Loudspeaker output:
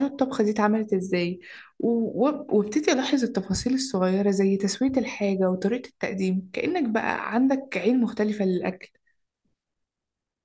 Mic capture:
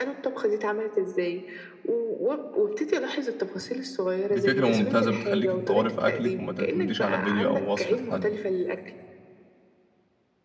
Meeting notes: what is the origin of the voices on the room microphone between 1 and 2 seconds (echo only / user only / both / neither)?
echo only